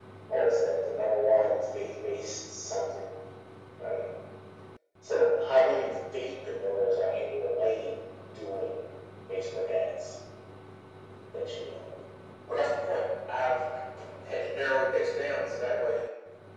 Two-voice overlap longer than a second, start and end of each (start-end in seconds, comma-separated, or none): none